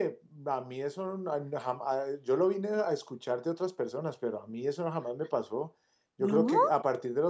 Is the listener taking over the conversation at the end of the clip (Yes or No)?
No